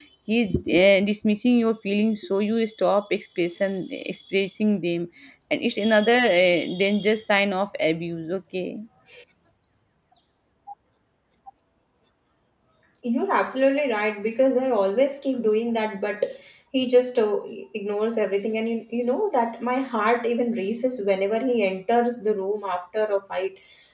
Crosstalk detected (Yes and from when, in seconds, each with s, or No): No